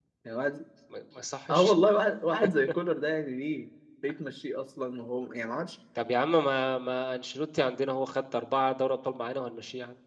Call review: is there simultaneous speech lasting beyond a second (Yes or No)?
No